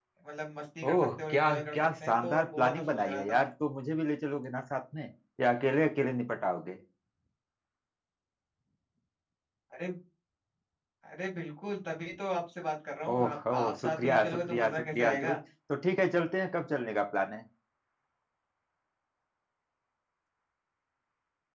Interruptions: present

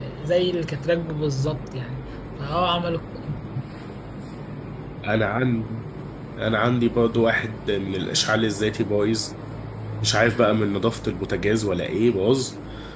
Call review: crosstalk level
none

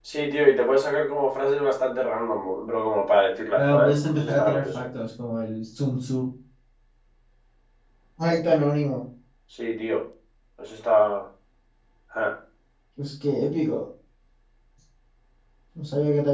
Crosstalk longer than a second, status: present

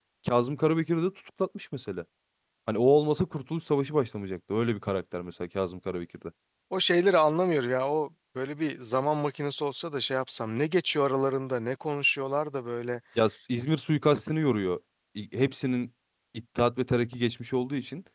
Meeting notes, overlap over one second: none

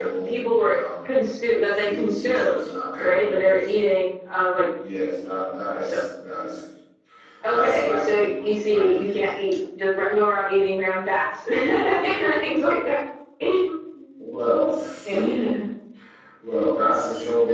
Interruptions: present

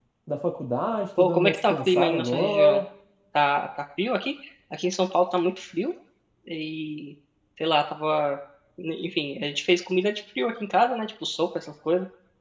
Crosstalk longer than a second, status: present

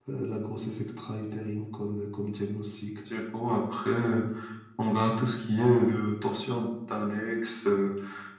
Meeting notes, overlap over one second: none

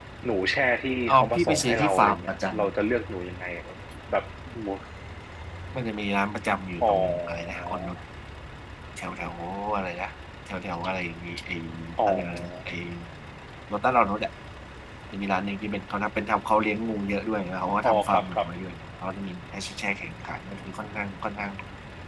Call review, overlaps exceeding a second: present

